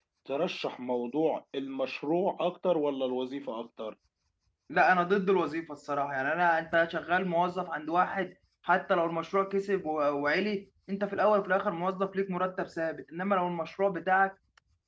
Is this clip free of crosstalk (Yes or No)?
Yes